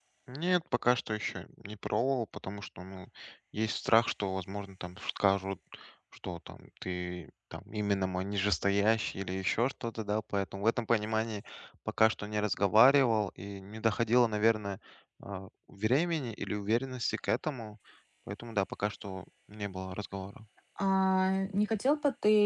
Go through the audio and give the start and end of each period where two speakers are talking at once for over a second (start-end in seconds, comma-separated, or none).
none